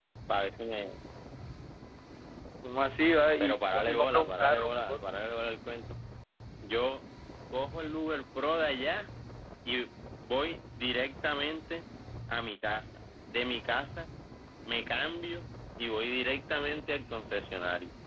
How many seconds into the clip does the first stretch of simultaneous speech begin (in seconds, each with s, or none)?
3.4 s